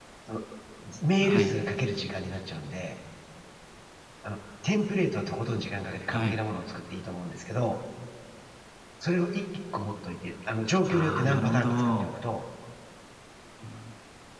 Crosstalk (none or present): present